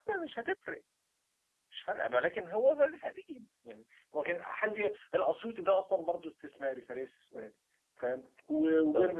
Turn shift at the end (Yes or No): No